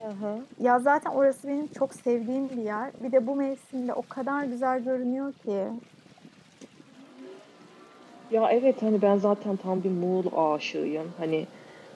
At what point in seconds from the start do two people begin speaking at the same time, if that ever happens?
none

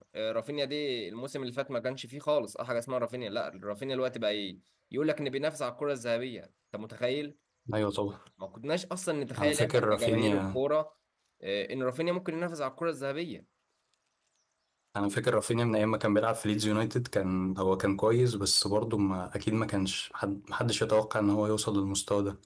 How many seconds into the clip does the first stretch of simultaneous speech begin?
9.4 s

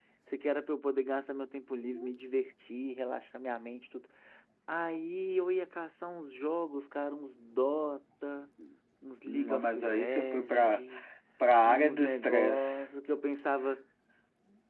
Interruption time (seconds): 9.2 s

